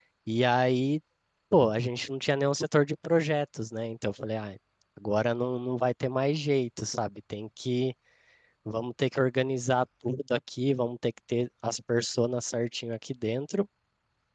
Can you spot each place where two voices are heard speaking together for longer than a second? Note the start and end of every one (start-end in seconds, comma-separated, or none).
none